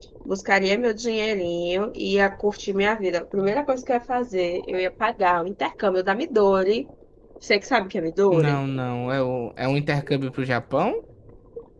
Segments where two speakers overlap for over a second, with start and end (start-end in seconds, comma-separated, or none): none